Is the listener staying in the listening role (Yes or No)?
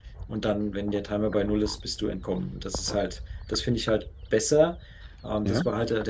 Yes